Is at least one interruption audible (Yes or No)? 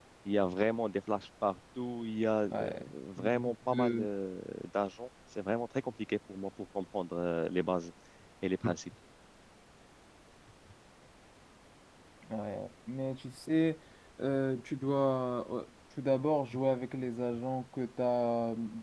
Yes